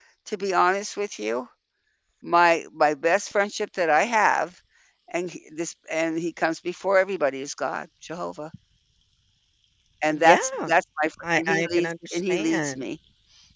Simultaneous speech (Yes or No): Yes